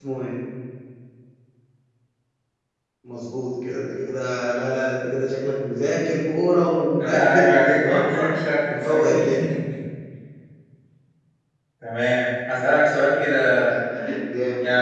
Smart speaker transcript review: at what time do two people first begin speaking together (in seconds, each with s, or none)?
7.0 s